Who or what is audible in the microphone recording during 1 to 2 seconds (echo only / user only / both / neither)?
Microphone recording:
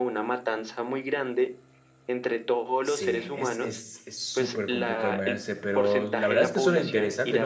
echo only